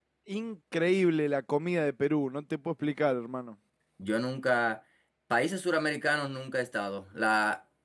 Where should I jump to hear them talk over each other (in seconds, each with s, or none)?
none